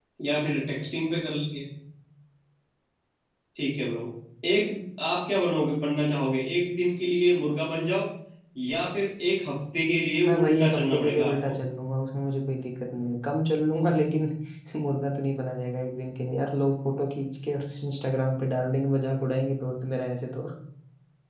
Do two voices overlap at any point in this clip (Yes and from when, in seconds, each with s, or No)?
Yes, from 10.2 s